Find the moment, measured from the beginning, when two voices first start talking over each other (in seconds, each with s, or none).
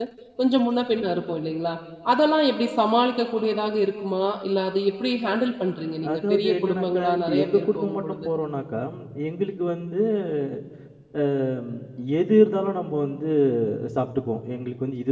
6.0 s